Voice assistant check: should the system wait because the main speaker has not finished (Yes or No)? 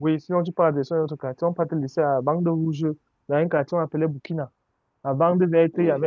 Yes